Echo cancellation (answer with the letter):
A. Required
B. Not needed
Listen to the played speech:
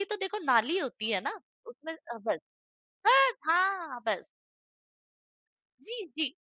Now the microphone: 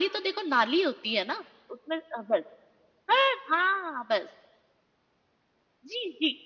A